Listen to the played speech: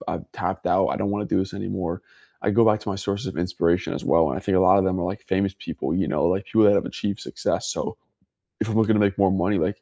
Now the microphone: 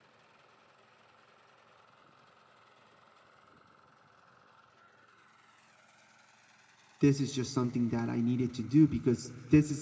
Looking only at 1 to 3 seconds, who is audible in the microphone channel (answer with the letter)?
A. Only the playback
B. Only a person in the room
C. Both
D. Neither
D